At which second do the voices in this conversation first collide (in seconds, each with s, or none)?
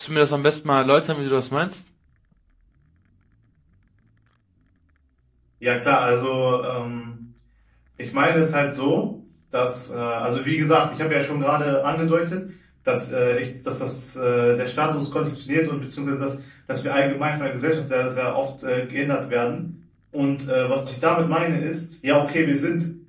none